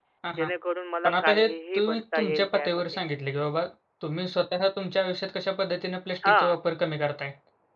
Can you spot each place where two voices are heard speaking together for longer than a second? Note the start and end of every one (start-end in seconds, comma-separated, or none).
1.0-2.8